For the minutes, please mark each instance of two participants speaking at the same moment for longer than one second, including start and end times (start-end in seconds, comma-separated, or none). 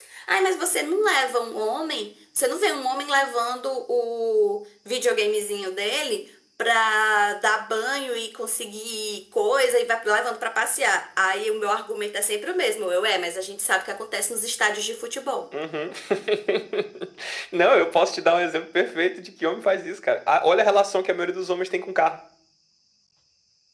none